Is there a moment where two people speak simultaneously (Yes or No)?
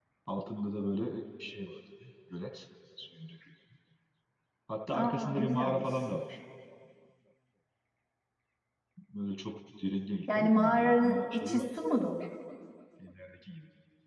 Yes